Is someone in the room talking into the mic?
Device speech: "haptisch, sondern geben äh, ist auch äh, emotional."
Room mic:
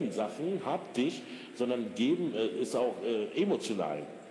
No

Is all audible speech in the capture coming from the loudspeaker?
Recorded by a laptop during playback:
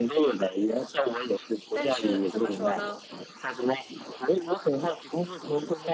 No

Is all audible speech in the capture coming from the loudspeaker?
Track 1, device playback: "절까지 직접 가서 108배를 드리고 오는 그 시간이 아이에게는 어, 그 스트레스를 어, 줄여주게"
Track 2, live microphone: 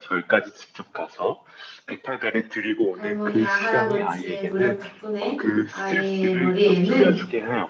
No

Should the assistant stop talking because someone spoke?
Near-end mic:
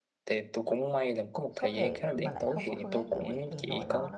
Yes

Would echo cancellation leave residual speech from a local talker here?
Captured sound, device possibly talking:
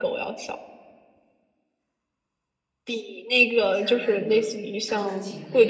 Yes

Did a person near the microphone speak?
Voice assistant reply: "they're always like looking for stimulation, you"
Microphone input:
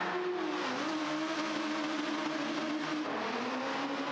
No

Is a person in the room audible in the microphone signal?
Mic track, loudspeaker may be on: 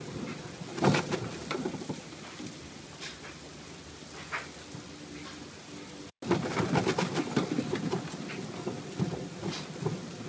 No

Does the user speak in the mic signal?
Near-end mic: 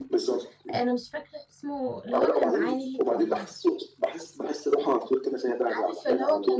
Yes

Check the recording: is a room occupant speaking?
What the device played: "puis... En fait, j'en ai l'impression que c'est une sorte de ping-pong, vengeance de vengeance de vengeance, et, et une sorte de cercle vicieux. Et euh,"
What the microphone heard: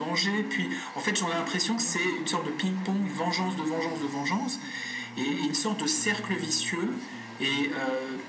Yes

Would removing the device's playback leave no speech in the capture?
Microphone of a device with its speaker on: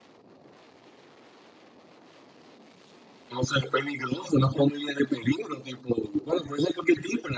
Yes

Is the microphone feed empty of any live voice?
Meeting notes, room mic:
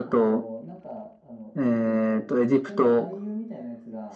No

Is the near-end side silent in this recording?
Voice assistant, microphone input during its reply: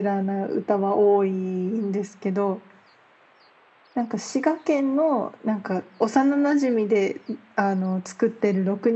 Yes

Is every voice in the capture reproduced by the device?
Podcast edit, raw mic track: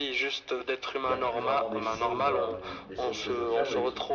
No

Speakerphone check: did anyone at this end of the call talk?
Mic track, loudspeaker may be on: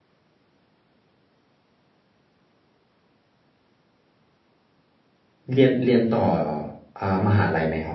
Yes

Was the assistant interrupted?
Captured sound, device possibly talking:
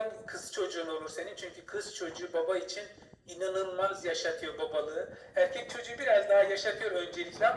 No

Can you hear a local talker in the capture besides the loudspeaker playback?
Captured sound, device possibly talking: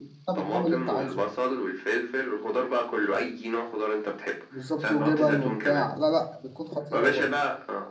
Yes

